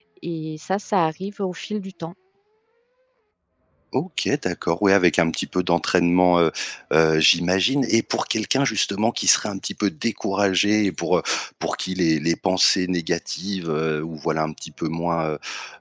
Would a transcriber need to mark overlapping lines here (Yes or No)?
No